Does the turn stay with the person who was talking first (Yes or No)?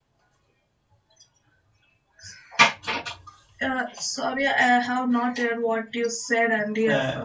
No